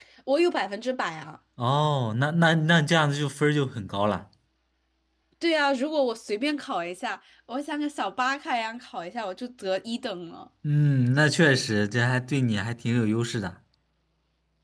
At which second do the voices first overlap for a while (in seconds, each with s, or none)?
none